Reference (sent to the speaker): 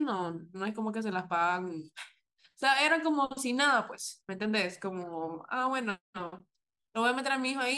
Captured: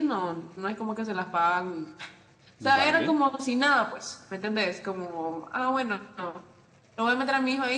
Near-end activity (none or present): present